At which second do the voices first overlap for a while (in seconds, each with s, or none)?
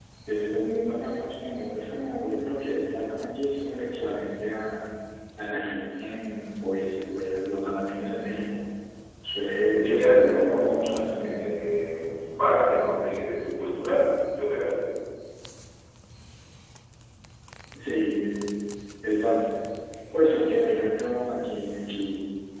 9.8 s